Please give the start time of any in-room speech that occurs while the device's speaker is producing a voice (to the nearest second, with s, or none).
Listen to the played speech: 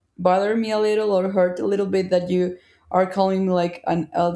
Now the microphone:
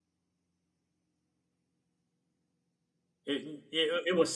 3 s